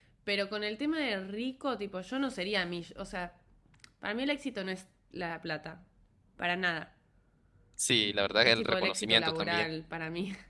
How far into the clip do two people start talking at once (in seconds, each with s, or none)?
8.4 s